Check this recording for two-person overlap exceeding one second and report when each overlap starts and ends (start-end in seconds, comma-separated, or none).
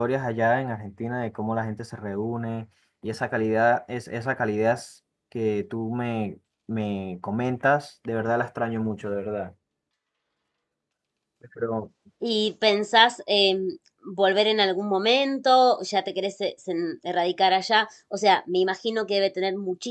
none